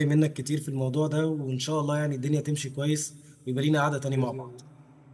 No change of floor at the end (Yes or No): No